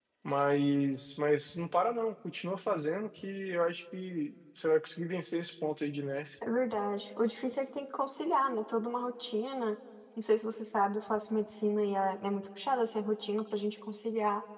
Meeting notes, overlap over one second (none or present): none